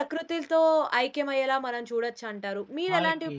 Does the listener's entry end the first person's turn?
No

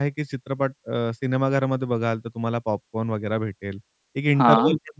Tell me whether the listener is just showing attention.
Yes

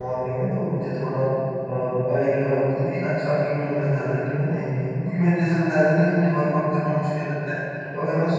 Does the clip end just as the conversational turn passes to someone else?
No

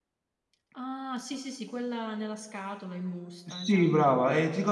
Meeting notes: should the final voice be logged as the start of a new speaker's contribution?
Yes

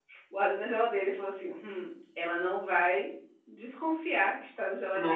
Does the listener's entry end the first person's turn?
No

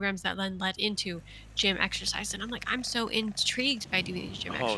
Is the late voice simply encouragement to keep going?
Yes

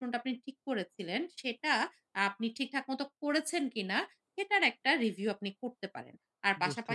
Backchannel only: Yes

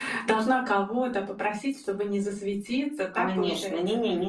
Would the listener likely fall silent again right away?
No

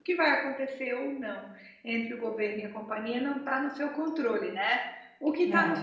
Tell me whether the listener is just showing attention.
Yes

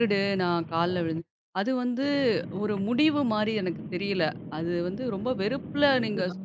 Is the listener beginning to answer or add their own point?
No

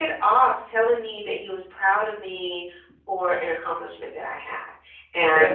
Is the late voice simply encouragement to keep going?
Yes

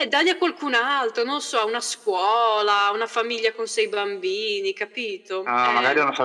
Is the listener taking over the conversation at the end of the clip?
Yes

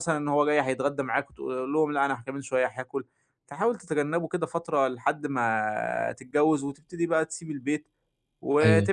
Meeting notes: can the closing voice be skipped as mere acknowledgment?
Yes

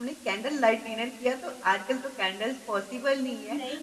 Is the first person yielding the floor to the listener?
No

